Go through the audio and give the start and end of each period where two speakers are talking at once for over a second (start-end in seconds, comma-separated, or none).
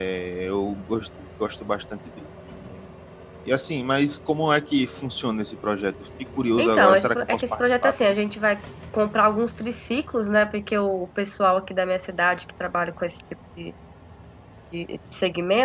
6.6-8.1